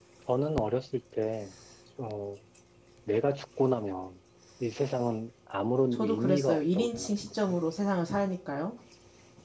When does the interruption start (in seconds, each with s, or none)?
5.9 s